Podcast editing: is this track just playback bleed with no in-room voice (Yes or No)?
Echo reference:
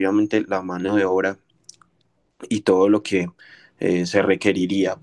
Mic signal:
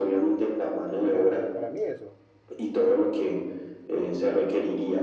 No